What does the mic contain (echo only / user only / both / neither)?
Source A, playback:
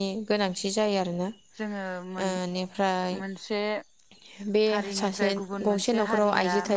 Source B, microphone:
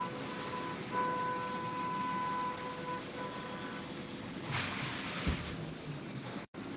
neither